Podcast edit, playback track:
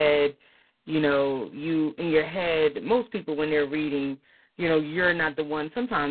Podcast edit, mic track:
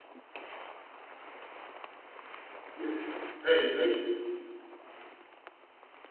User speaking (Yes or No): Yes